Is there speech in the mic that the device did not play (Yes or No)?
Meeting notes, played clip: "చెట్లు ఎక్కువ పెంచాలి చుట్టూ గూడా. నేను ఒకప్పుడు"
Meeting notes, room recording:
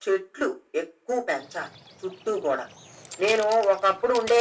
No